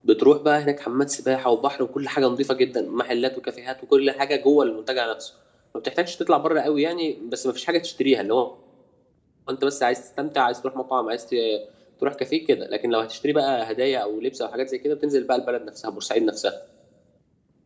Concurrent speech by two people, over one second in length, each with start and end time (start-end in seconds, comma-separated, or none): none